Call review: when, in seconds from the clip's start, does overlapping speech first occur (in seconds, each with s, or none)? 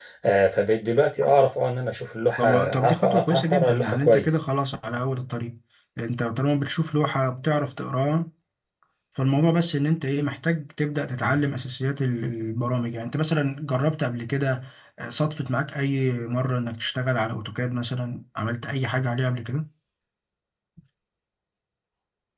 2.4 s